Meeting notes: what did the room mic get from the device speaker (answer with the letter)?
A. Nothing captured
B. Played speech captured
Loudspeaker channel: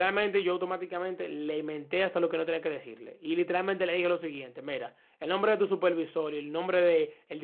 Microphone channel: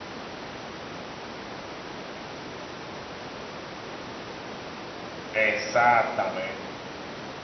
A